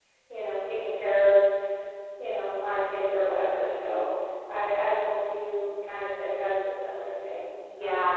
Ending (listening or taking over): taking over